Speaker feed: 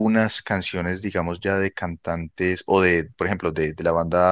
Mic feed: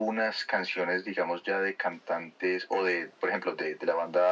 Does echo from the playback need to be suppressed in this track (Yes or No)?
Yes